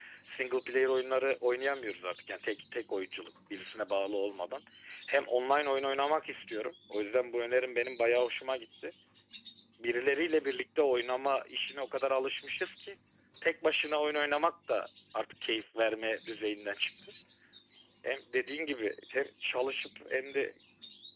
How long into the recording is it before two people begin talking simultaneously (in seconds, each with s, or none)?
none